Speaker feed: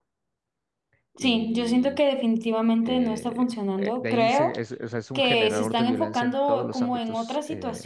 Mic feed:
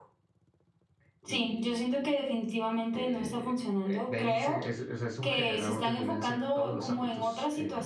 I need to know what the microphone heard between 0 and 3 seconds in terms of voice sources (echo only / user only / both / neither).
echo only